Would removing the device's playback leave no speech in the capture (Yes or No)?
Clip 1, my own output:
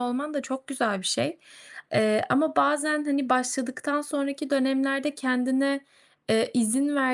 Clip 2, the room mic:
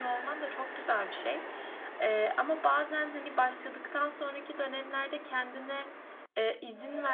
Yes